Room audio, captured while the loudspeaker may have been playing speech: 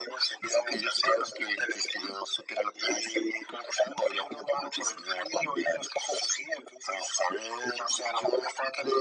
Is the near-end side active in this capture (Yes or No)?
No